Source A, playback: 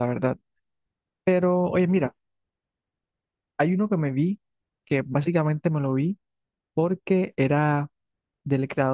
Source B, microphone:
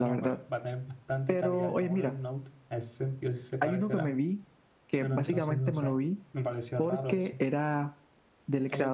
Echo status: present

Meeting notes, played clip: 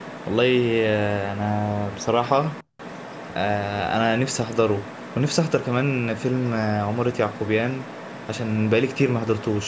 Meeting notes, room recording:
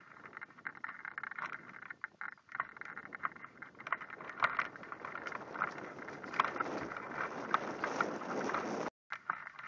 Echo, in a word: none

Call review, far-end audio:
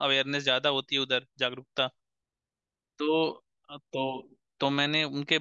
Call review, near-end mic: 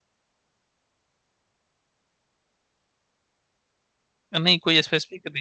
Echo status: none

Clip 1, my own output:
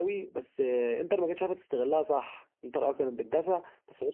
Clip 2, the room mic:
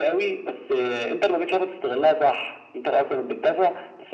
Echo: present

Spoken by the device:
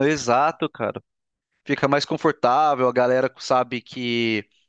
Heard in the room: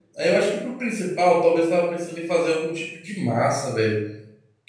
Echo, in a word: none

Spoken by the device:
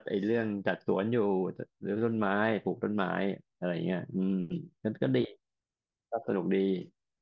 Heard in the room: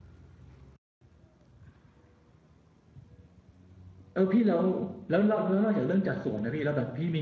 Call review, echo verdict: none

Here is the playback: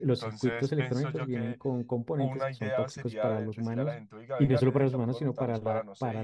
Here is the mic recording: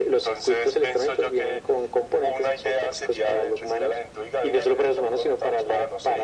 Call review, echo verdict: present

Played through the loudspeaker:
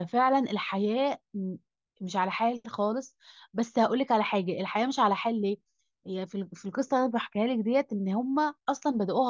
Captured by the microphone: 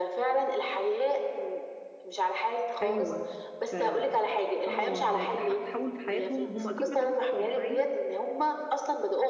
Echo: present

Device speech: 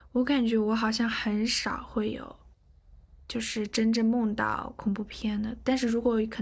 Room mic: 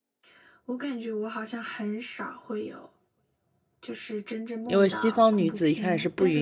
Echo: present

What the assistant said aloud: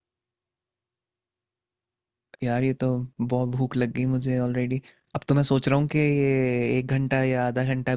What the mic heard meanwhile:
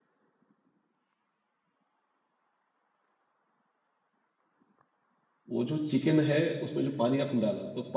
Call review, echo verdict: none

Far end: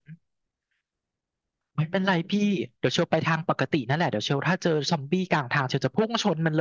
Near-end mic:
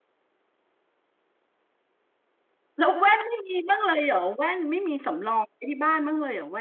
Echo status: none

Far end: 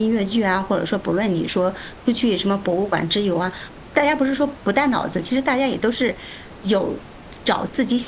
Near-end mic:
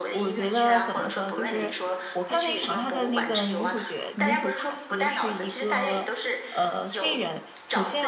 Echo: present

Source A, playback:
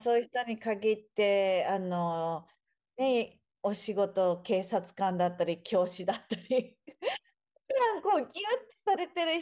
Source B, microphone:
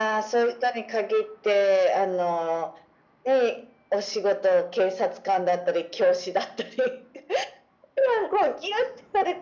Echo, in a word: present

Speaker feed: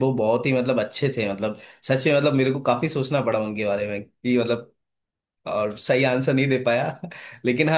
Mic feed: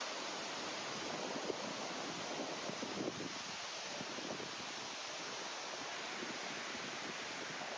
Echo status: none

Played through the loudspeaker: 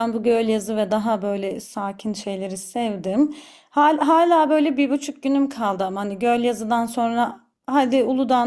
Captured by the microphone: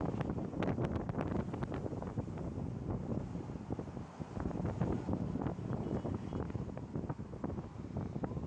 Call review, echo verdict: none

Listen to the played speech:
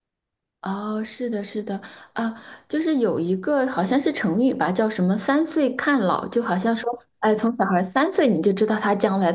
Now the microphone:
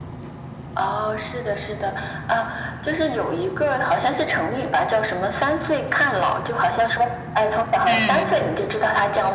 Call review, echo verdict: present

